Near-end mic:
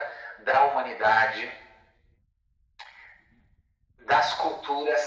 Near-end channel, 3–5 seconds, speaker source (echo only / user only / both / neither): echo only